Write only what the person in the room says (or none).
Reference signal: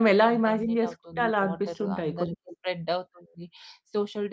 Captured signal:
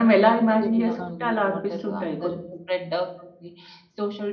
స్టేబుల్‌గా. ఉంటారు.